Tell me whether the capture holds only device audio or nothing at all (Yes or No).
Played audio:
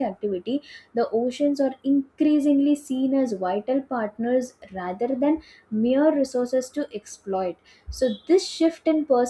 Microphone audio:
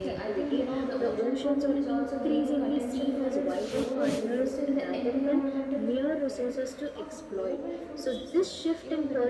No